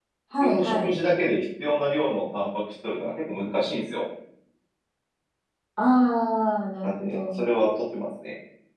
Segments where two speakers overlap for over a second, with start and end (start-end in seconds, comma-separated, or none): none